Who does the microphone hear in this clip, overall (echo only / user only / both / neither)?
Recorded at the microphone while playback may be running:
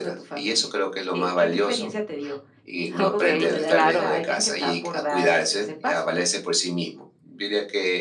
both